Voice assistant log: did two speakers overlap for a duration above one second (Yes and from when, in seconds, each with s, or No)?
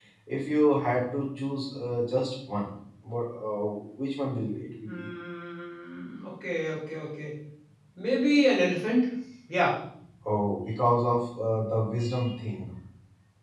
No